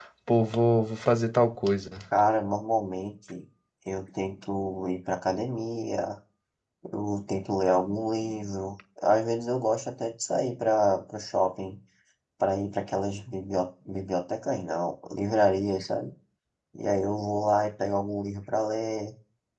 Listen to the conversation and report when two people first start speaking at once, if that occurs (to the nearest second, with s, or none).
none